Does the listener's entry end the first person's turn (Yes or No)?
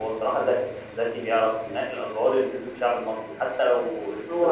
Yes